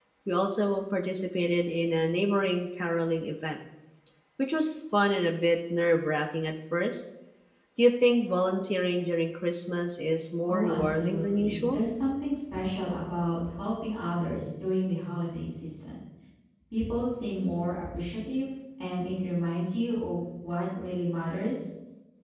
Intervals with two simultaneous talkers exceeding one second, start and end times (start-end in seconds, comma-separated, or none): 10.5-11.8